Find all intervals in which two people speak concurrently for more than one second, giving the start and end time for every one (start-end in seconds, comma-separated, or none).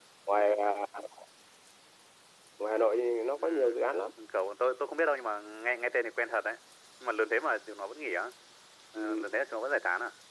none